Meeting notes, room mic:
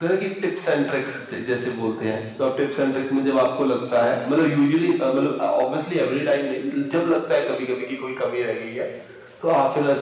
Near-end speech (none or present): present